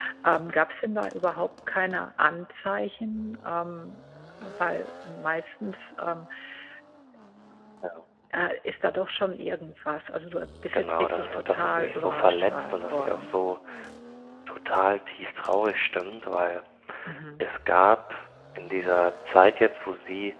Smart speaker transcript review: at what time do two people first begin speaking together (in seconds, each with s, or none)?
10.6 s